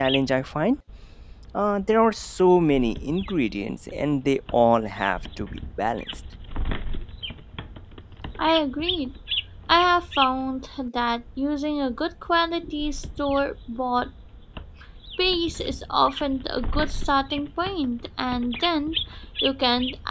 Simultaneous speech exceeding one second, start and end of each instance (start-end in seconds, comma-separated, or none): none